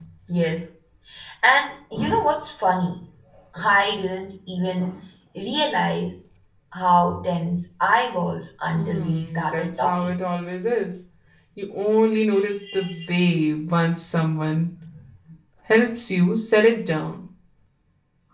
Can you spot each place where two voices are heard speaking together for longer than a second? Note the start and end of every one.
8.7-10.2

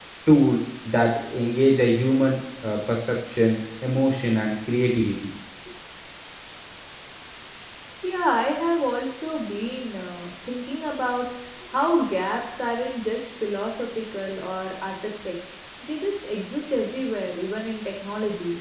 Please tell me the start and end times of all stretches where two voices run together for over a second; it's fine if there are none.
none

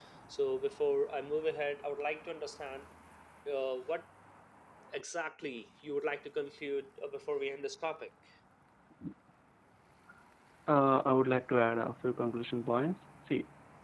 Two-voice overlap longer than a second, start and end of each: none

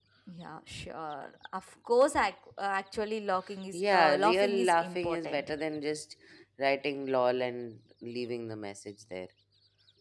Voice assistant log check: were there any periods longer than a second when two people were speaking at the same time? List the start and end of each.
3.7-5.5

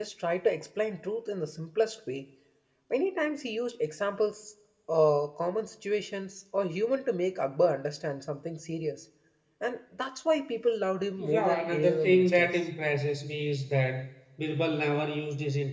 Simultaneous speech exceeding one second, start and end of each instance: 11.2-12.6

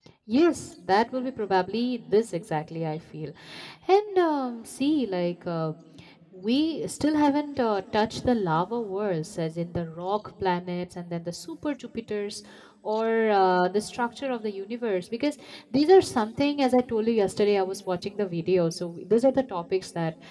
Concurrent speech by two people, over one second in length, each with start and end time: none

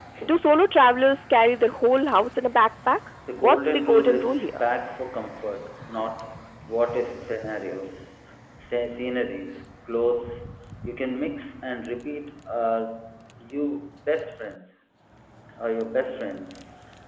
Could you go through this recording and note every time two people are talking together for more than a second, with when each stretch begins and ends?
3.4-4.6

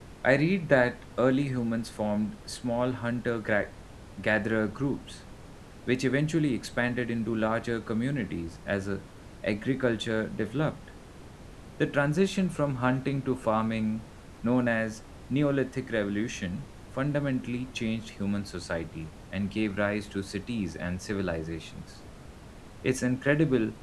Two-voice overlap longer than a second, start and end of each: none

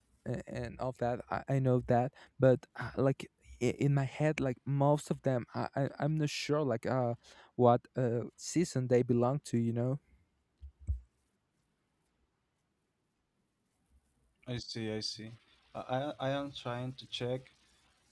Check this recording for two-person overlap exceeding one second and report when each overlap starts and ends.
none

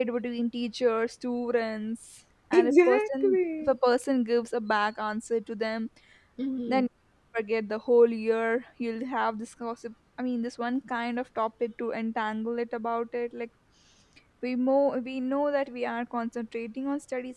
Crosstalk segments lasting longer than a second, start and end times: 2.5-3.8

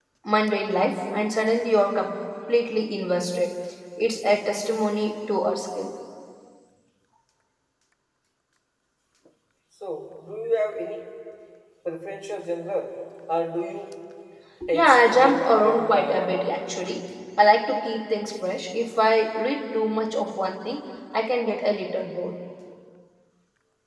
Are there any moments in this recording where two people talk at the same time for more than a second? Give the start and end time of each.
14.7-16.5

